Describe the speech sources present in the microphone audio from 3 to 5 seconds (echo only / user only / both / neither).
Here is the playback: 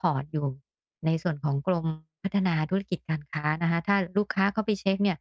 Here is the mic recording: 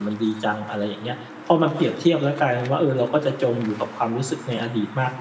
user only